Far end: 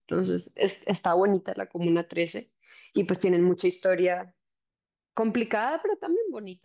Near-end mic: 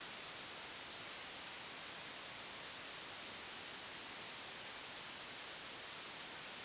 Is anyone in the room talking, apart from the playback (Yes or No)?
No